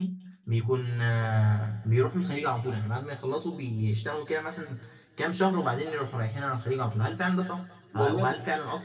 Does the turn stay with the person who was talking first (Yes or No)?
Yes